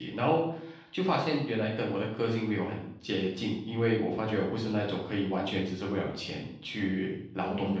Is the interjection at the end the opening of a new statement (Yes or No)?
Yes